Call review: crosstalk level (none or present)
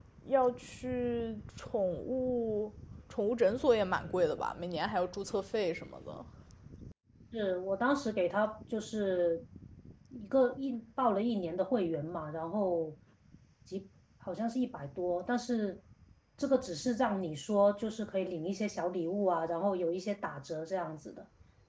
none